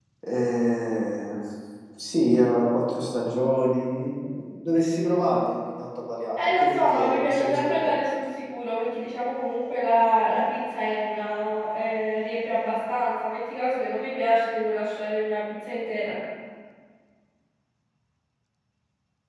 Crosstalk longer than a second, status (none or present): present